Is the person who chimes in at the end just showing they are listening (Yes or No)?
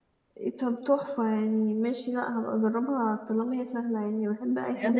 No